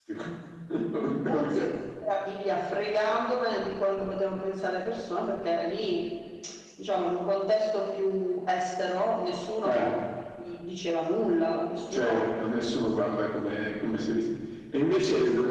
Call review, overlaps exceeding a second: none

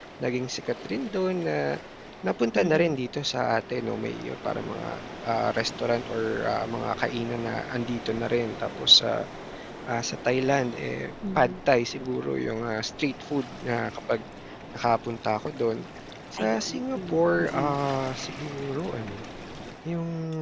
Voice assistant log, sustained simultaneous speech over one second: present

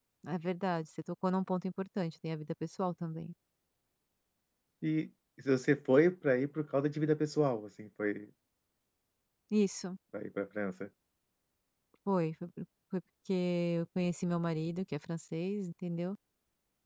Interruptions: none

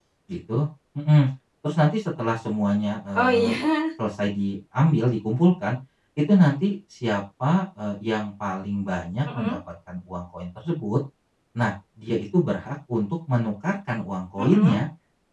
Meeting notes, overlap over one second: none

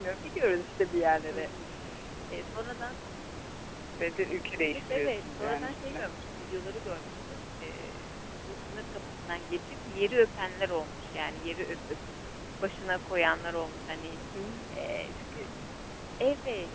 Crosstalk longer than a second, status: present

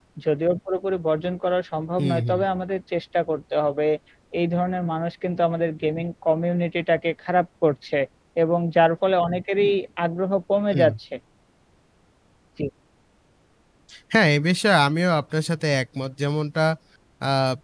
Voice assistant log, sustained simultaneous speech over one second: none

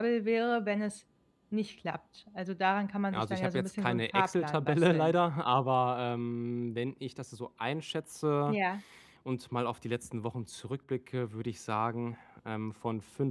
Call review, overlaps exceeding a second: present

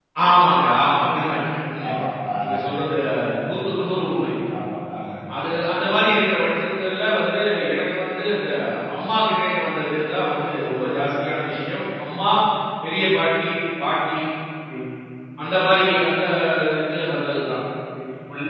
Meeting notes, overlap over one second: none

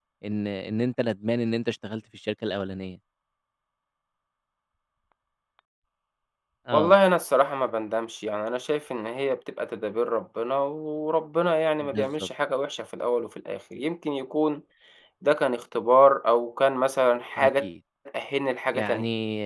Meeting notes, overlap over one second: none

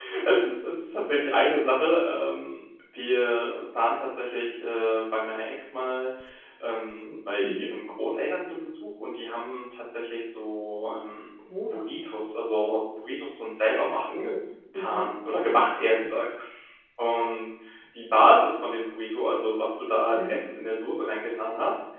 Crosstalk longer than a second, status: none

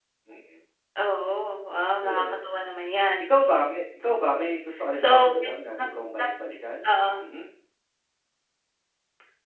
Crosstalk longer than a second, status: none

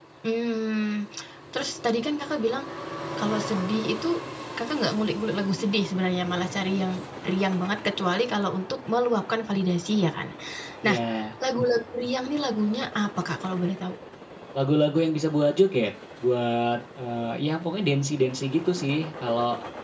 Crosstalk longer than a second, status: none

